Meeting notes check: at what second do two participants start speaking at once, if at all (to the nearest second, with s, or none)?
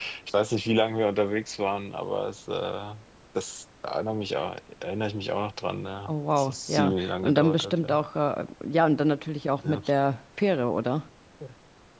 6 s